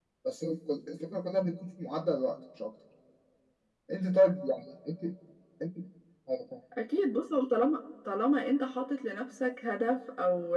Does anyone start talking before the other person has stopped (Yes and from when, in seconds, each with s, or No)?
No